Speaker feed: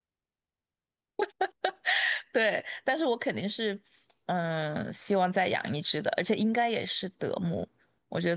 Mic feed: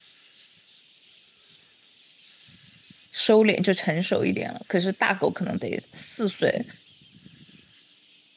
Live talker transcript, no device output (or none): 收敛，就成熟一点了。可是大狗可能得四岁